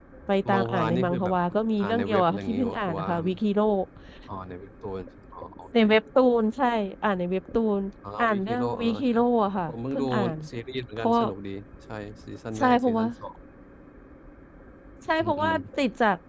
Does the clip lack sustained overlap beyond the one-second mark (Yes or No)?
No